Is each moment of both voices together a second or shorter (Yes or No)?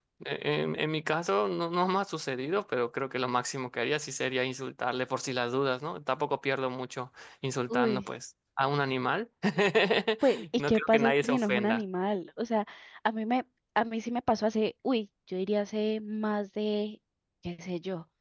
No